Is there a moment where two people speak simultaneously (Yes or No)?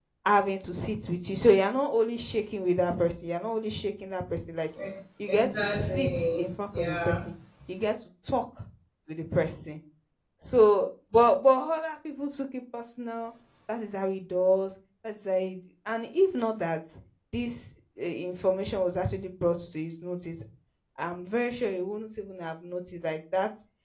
Yes